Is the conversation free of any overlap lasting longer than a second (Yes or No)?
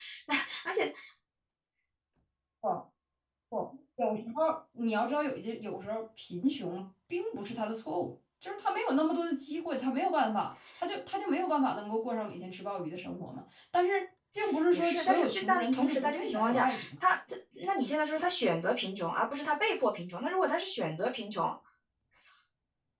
No